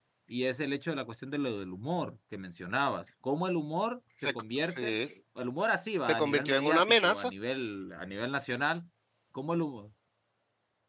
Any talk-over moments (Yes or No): Yes